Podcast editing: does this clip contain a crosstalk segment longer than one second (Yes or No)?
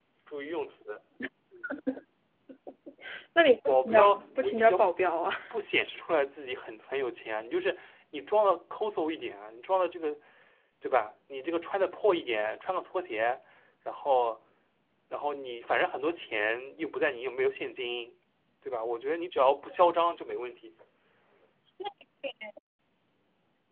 Yes